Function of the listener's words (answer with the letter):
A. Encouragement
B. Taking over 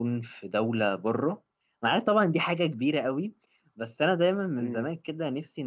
A